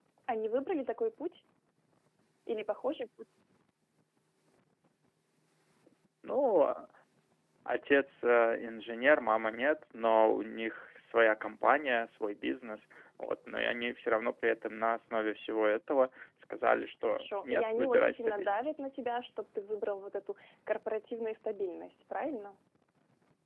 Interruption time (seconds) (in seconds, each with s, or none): 17.0 s